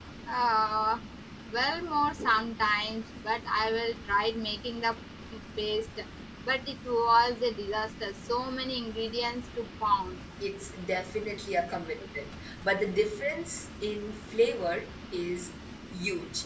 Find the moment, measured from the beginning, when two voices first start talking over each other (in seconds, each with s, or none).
none